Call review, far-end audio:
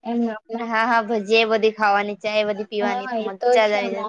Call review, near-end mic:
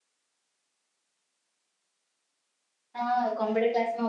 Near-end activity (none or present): present